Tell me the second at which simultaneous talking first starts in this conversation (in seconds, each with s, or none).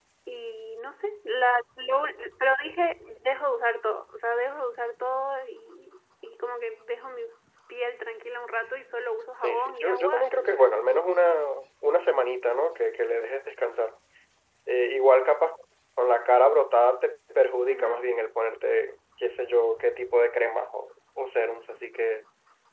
9.4 s